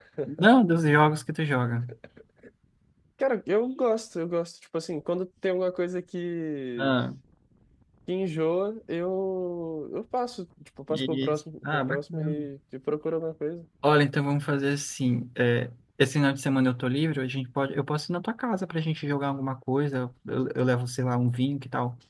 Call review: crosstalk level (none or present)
present